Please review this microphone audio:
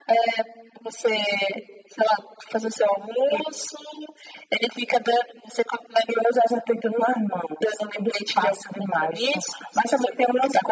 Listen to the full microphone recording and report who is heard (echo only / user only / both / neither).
echo only